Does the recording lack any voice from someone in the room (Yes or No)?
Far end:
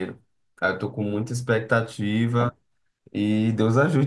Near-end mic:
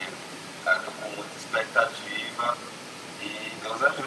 Yes